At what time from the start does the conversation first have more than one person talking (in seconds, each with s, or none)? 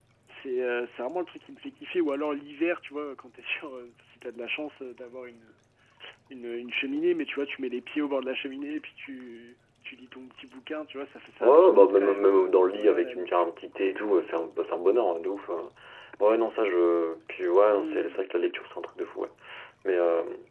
11.4 s